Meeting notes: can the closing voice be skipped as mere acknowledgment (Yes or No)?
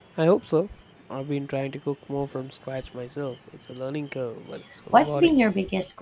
No